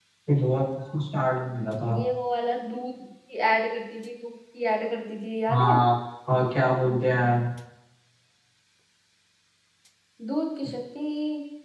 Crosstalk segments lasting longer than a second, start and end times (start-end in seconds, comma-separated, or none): none